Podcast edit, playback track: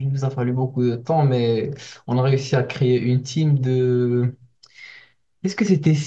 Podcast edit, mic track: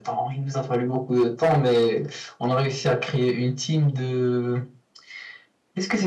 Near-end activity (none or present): none